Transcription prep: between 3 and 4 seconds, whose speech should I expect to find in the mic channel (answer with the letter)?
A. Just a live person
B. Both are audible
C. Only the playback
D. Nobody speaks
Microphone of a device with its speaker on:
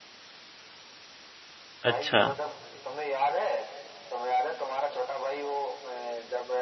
C